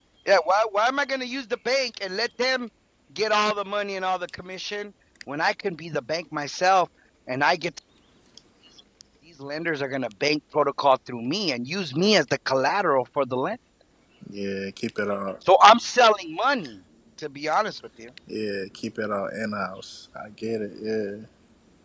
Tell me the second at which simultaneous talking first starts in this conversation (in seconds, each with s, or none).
none